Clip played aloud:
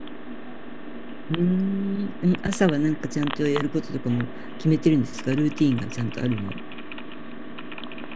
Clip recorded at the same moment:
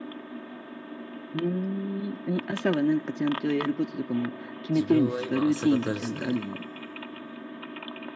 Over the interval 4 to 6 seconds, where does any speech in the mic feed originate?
both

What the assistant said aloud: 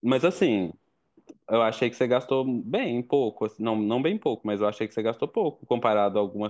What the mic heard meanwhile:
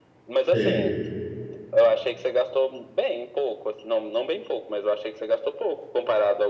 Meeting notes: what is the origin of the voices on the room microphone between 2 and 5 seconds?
echo only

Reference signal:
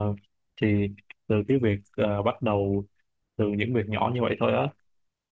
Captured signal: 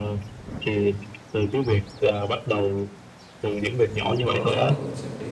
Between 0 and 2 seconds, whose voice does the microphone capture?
echo only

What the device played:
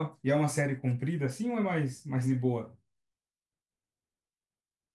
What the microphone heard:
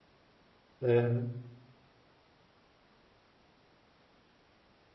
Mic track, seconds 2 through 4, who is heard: neither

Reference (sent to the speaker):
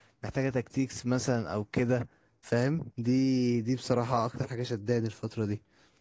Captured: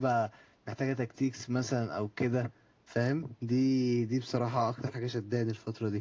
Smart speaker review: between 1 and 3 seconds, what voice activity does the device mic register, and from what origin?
echo only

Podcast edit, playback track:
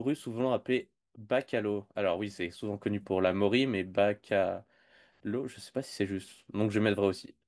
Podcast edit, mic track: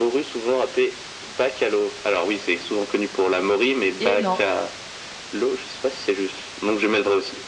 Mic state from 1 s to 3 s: echo only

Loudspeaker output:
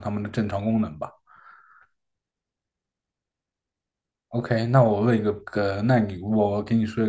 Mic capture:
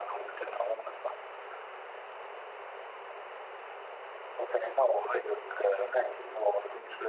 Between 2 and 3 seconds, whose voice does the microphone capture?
neither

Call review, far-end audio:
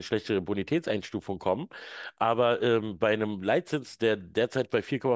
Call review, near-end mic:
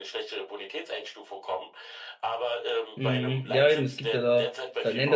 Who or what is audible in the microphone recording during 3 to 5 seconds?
both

